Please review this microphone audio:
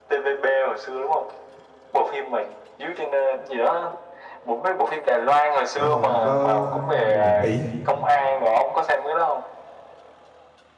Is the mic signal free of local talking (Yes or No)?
No